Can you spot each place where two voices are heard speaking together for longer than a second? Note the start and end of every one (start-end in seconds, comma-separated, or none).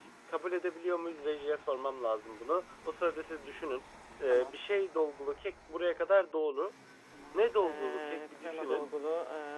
7.3-8.9